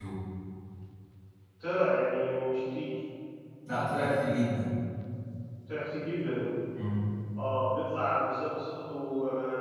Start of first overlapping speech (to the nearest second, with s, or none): none